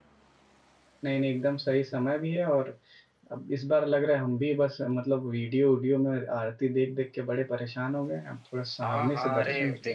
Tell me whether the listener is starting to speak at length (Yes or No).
Yes